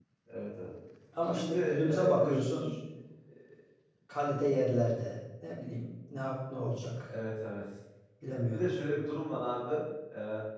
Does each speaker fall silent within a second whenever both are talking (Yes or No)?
No